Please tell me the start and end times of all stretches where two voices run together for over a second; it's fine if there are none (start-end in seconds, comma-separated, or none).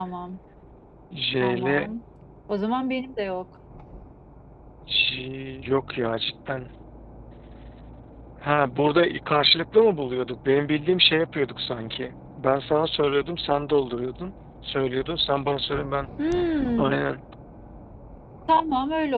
none